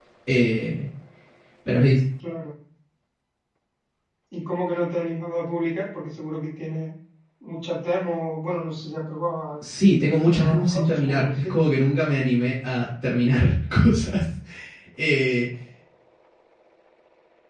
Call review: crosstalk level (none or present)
present